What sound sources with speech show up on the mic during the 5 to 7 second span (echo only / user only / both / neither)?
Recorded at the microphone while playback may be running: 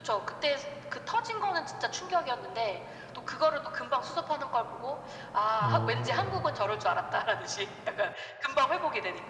both